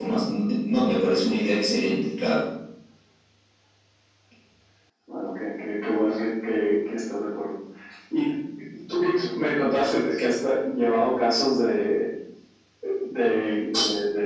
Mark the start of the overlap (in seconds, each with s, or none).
none